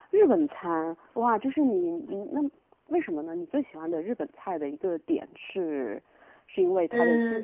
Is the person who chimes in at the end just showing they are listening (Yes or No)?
Yes